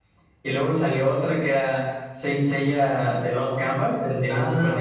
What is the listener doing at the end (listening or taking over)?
taking over